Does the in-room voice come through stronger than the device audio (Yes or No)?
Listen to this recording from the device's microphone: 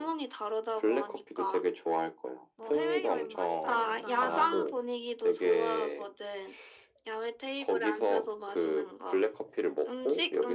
No